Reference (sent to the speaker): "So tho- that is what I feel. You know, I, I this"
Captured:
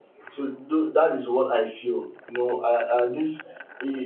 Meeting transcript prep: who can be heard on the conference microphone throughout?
echo only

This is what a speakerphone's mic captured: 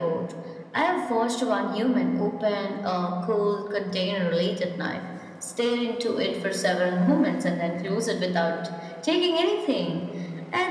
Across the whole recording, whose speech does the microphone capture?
echo only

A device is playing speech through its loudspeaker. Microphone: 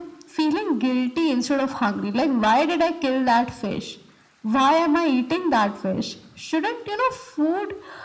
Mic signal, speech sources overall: echo only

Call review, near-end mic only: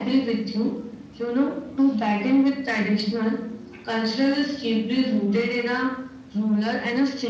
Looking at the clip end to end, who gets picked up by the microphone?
echo only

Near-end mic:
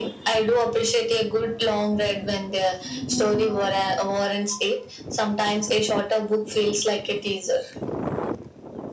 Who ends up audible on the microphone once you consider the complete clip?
echo only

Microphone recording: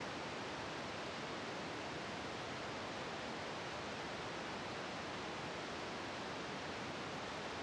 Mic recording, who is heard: neither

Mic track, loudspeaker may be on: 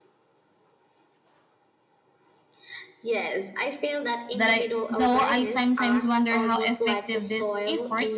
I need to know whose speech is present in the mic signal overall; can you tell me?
both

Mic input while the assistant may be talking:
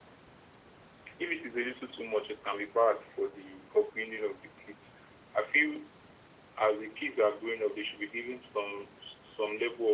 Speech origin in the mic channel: echo only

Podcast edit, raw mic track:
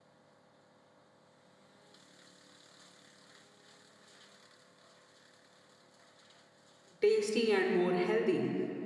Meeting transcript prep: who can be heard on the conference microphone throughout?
user only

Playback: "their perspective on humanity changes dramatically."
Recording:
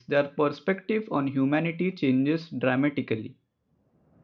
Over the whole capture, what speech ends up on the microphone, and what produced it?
echo only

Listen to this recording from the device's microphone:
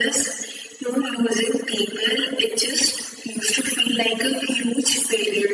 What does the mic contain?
echo only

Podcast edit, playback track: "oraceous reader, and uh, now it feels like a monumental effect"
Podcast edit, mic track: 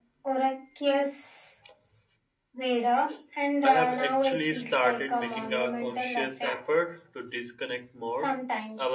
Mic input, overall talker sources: both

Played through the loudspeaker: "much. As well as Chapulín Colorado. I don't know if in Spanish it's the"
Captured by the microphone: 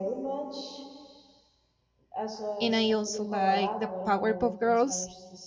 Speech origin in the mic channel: both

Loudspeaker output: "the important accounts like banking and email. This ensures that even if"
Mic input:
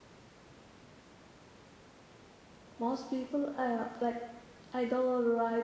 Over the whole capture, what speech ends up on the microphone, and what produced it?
user only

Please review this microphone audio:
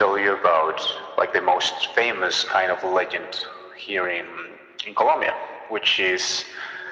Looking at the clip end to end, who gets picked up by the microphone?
echo only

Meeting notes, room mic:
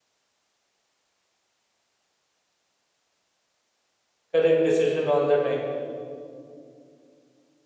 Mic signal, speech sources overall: user only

